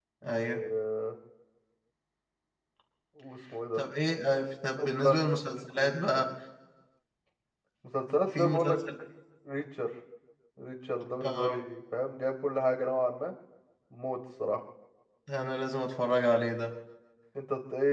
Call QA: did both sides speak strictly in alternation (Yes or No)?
No